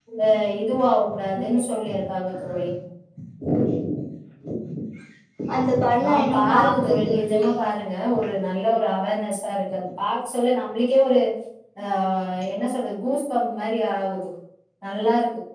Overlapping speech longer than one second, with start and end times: 6.1-7.5

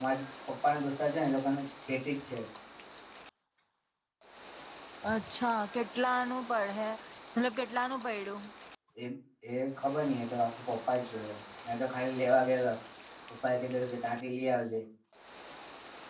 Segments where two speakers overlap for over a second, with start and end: none

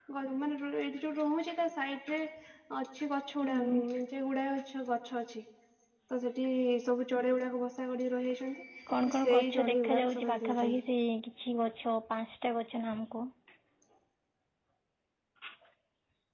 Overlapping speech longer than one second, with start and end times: 9.0-10.8

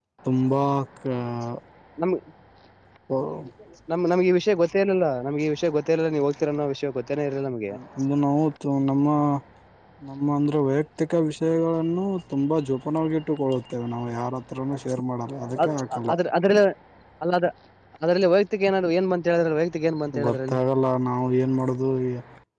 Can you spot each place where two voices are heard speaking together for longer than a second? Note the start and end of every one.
none

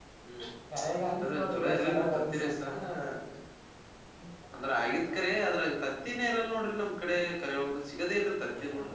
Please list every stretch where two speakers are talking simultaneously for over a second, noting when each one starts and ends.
1.1-2.5

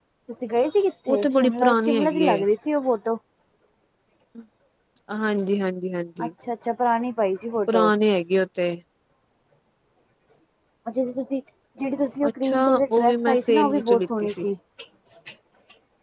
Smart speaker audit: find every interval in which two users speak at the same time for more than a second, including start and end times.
1.1-2.4, 12.3-14.4

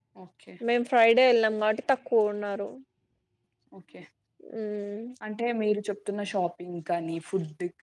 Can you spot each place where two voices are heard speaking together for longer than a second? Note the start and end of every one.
none

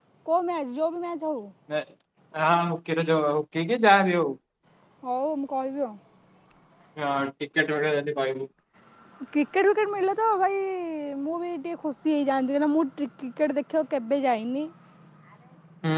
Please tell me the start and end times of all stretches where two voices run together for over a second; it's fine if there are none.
none

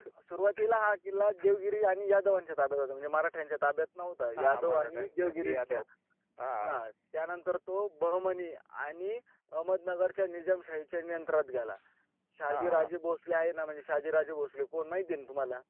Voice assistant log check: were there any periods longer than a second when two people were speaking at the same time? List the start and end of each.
4.4-5.8

